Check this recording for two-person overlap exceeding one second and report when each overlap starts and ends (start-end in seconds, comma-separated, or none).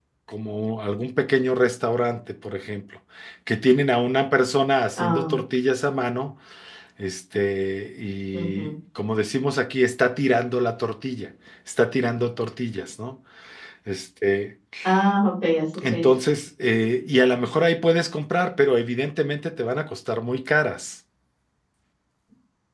none